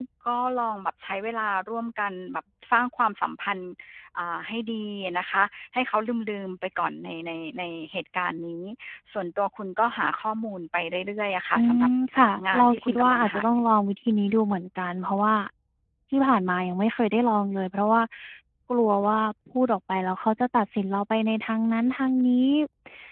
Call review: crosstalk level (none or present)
present